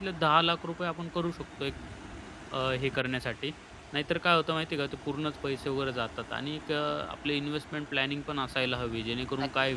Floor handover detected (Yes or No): No